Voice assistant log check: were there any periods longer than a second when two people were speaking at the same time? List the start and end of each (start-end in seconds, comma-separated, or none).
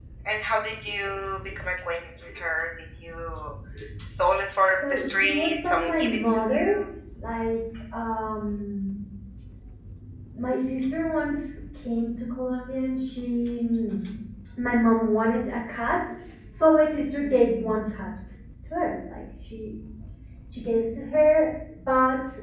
4.8-6.8